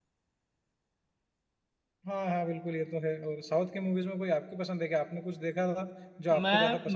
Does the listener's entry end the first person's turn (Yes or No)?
Yes